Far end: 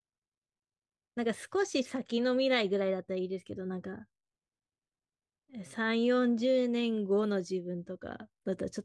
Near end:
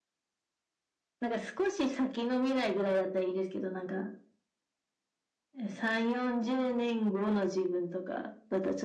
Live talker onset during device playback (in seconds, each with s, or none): none